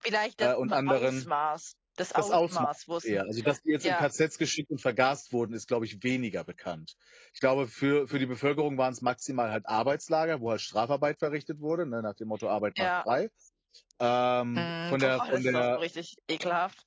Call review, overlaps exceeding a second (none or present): present